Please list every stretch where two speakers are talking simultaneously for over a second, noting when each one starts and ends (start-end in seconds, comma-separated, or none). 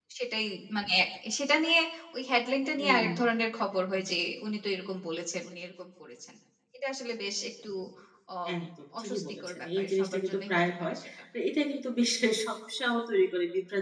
9.0-11.0